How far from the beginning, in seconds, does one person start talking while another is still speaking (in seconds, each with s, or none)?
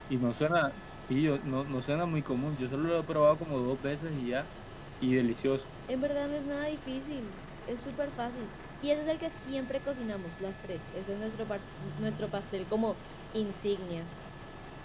none